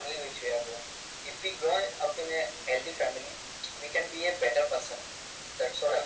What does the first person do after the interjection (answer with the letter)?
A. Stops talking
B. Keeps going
B